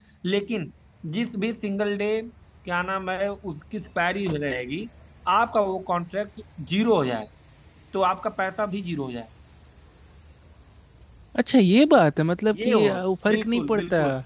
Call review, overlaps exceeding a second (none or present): present